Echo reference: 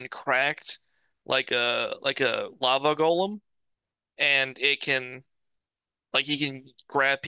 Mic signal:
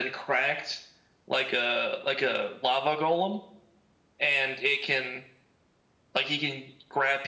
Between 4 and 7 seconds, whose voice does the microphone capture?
echo only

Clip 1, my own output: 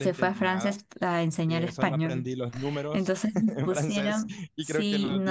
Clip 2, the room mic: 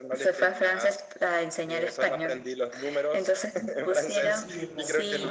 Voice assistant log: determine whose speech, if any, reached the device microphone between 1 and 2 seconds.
echo only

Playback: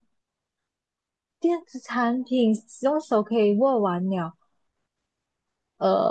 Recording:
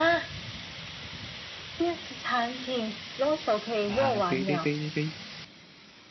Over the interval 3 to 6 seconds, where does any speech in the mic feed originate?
both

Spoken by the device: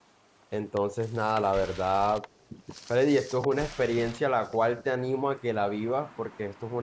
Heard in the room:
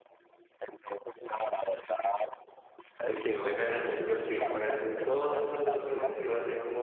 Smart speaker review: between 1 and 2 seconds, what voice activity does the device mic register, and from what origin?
echo only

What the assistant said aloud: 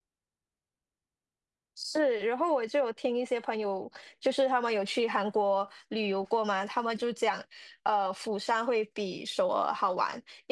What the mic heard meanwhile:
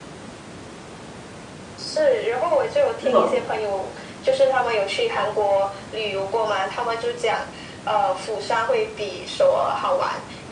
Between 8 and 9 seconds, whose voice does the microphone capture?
echo only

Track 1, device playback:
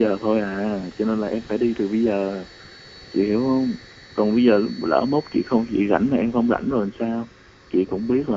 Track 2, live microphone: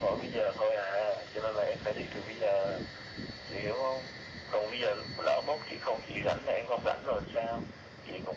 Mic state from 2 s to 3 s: echo only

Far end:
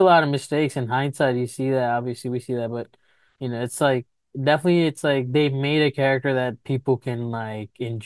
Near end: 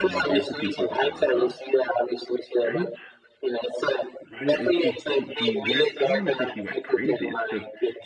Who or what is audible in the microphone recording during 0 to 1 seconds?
both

